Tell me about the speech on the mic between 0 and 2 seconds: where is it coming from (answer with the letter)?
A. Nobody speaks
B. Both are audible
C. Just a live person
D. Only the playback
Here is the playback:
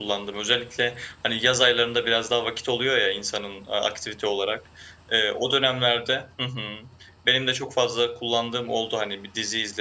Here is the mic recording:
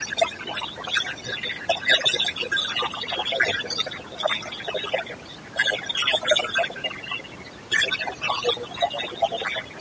D